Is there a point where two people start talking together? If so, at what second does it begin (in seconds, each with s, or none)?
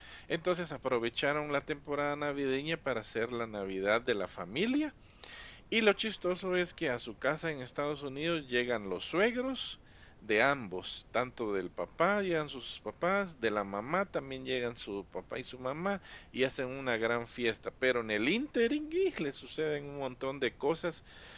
none